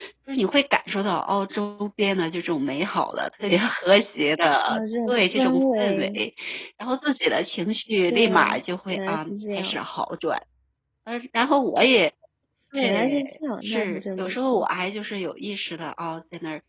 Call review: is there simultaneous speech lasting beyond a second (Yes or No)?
Yes